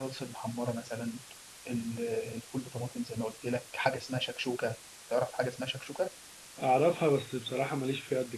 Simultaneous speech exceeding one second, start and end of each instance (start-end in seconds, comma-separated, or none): none